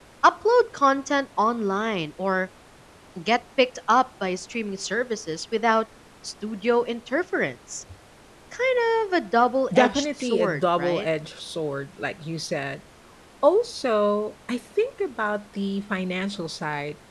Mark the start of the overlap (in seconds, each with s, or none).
9.7 s